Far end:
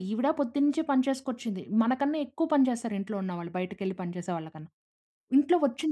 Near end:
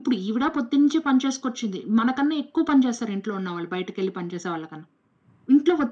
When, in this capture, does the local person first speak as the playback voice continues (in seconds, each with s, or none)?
none